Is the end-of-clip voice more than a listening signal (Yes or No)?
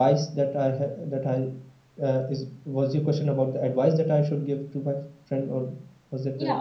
Yes